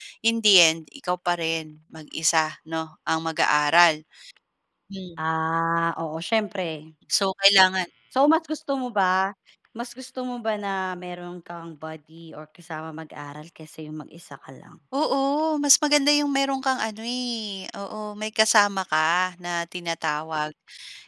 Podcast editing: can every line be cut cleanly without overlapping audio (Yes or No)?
Yes